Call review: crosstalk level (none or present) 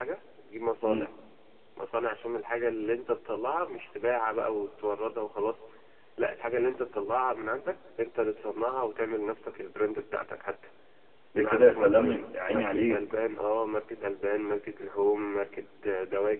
present